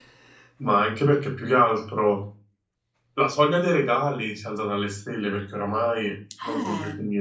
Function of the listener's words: listening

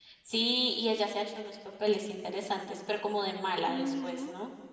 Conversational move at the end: taking over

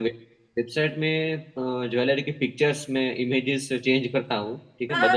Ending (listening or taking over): taking over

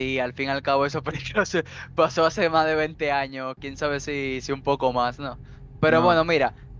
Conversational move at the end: listening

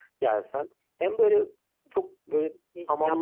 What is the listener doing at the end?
taking over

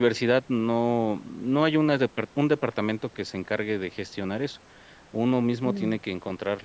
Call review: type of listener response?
listening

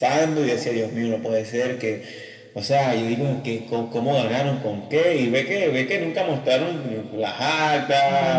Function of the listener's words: taking over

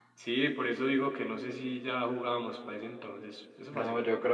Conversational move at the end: taking over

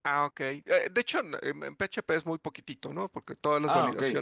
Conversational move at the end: listening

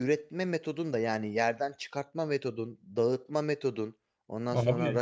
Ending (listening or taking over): listening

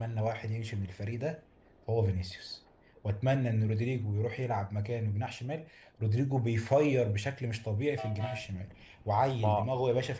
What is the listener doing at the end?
listening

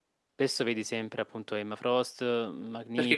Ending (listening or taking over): taking over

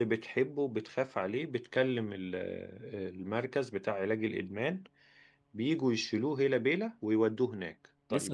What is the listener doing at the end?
taking over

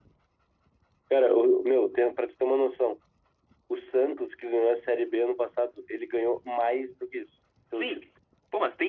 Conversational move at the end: taking over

